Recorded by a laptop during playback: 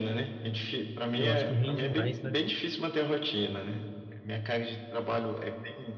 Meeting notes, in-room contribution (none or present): present